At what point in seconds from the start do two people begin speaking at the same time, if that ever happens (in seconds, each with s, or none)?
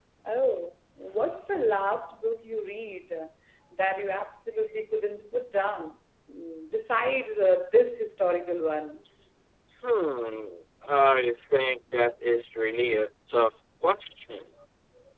none